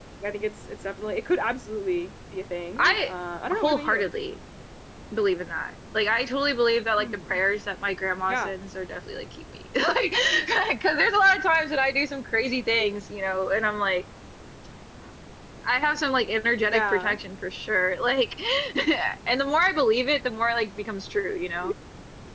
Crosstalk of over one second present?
No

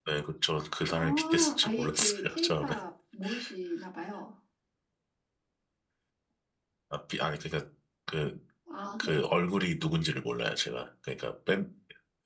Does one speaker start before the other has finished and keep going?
Yes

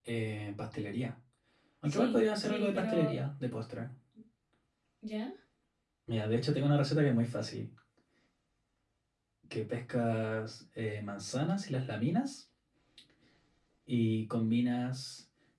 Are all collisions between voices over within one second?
No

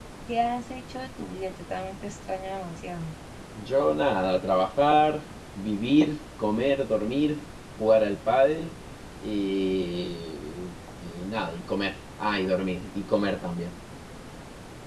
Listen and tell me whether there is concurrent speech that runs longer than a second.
No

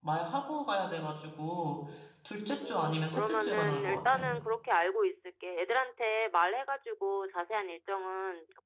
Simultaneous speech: Yes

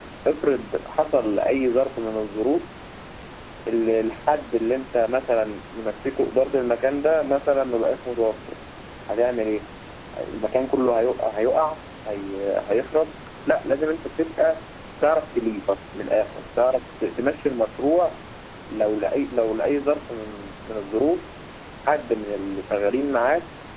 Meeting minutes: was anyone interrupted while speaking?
No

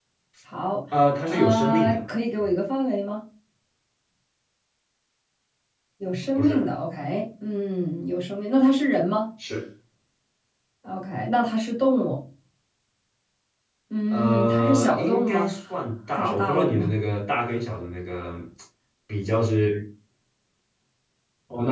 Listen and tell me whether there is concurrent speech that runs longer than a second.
Yes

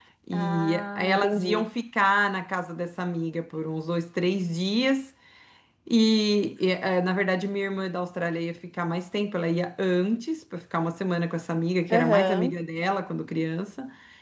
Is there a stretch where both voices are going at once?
Yes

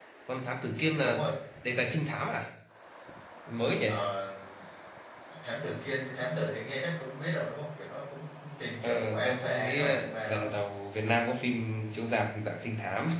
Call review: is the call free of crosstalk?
No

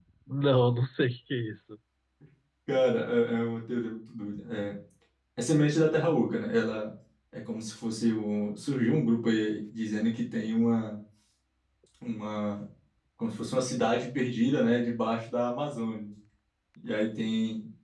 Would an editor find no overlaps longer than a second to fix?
Yes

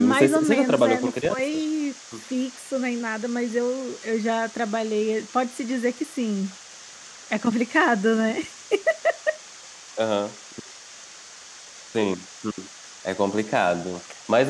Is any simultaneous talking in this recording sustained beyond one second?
Yes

